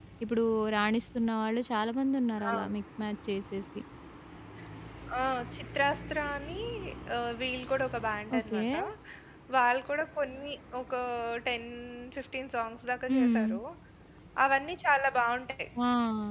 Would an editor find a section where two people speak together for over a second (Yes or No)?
No